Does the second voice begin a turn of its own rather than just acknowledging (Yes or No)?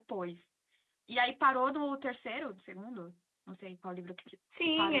Yes